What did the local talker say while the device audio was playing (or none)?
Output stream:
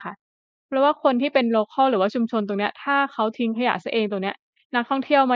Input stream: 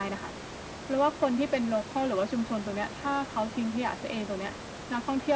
none